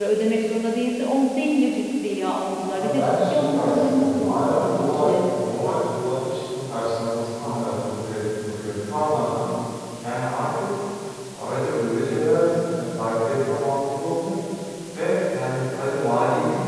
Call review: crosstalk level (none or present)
present